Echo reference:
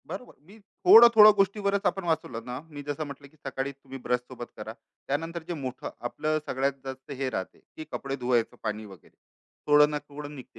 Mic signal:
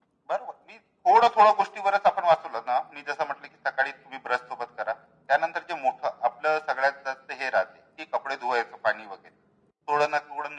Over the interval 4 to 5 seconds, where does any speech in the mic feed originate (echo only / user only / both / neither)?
echo only